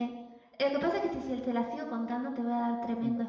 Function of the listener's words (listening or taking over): taking over